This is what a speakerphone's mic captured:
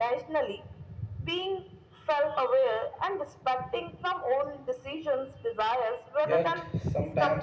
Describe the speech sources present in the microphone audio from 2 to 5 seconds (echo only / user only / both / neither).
echo only